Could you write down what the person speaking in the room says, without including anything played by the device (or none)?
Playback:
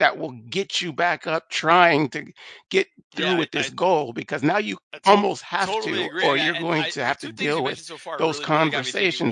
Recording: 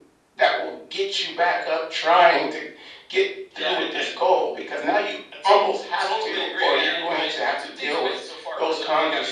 none